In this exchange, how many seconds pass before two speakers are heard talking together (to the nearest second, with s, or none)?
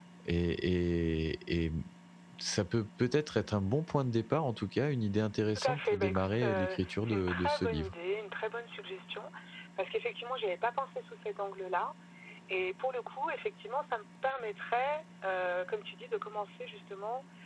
5 s